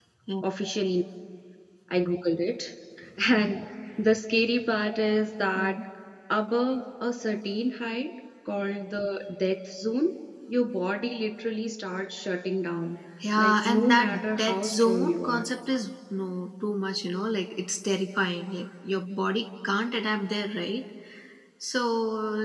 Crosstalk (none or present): present